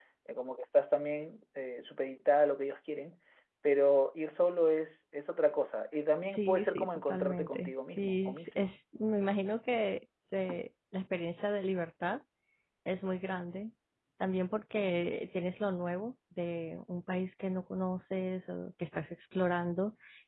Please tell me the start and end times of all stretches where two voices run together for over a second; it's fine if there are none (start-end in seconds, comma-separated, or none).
6.3-8.7